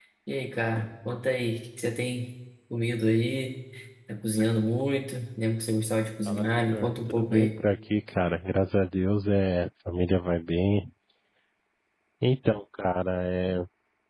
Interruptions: present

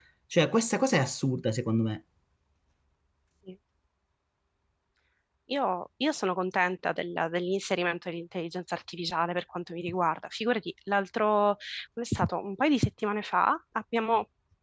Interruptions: none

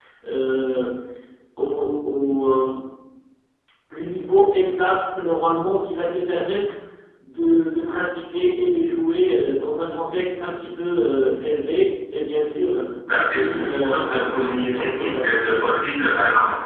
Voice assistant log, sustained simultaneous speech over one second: present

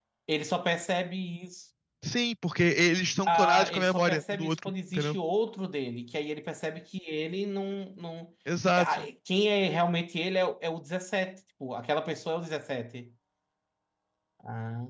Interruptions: present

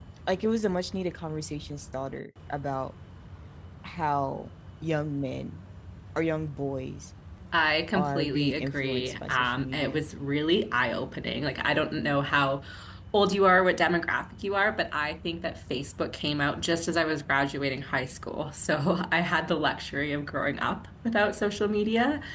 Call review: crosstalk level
present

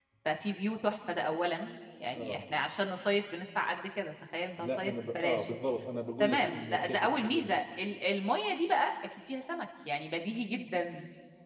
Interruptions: present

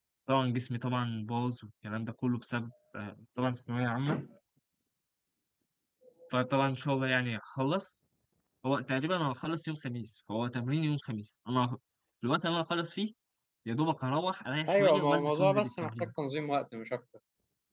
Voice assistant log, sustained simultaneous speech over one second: present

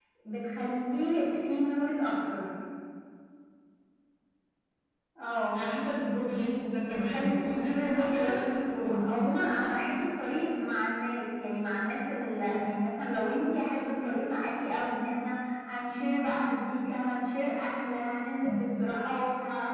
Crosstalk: present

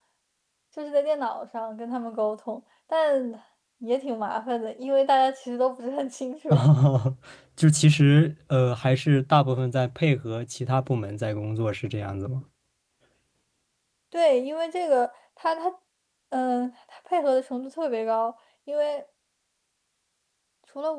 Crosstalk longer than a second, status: none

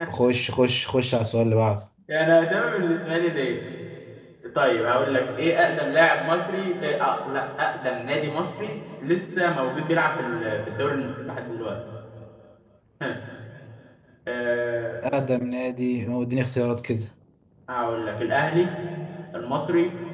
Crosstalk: none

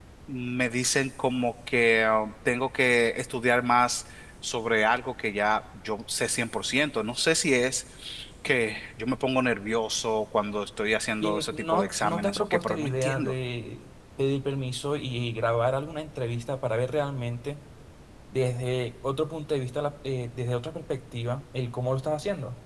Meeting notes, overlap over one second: present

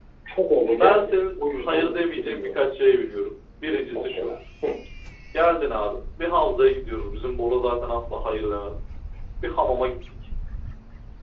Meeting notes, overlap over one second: present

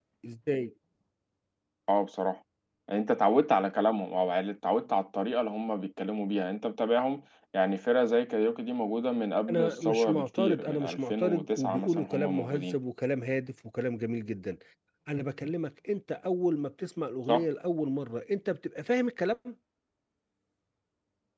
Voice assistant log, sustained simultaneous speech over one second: present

